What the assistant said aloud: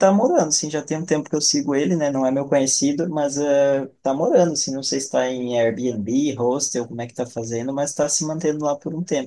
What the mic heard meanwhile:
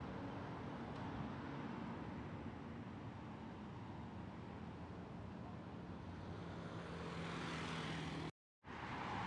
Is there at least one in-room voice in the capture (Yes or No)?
No